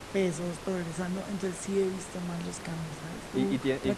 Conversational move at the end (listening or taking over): taking over